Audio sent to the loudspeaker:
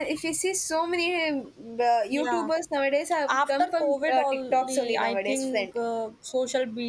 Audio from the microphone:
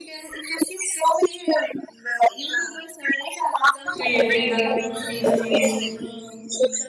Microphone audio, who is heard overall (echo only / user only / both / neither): both